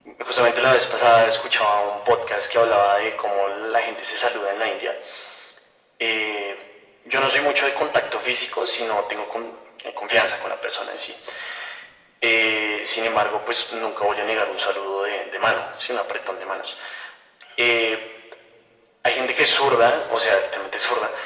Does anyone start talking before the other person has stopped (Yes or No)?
No